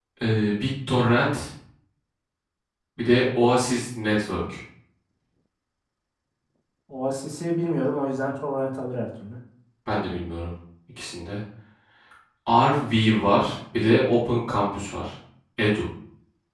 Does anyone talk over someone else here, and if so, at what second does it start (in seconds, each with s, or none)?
none